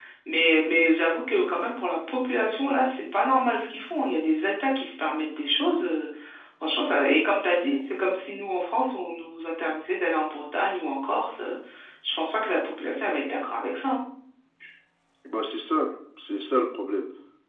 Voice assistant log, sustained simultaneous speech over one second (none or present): none